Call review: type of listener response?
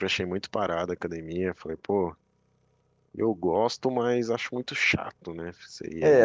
taking over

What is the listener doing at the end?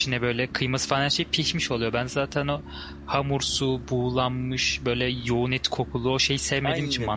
taking over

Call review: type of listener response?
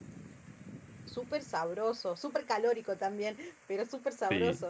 taking over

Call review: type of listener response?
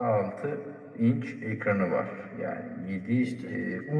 listening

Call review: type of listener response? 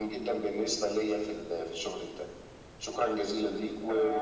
taking over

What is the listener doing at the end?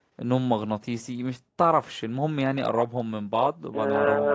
taking over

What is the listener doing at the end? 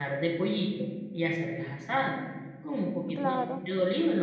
listening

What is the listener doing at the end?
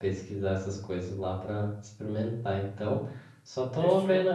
listening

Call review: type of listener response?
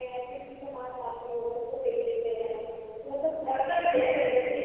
taking over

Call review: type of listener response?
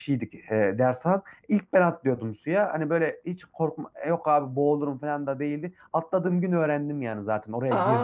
listening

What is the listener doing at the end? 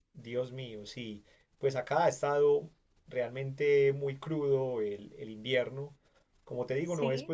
listening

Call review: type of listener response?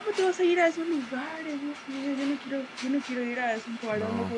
listening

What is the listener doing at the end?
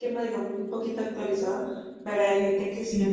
listening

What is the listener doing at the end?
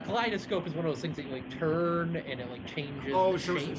taking over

